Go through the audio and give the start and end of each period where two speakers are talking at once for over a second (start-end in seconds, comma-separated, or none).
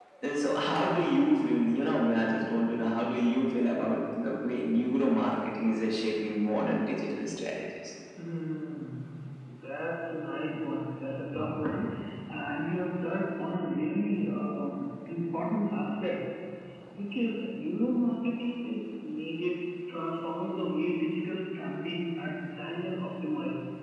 none